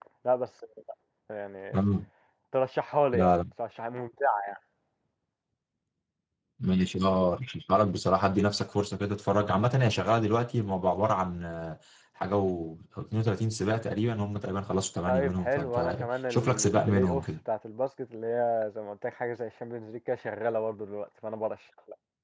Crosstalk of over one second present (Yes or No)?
Yes